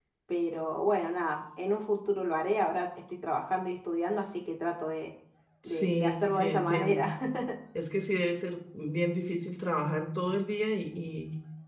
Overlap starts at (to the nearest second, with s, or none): 6 s